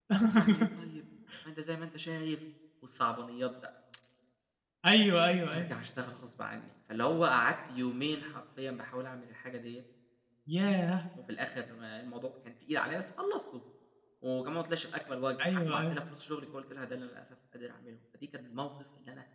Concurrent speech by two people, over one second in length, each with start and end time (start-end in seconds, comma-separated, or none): none